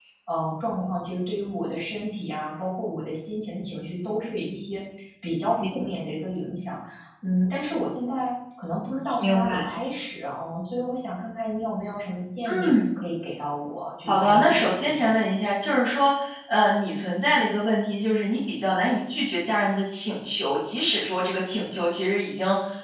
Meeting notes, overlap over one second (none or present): present